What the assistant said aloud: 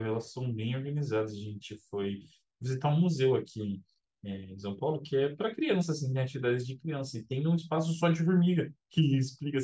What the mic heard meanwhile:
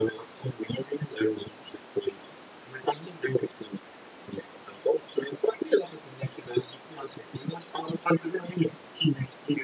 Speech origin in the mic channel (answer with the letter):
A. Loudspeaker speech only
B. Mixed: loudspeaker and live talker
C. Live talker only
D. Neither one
A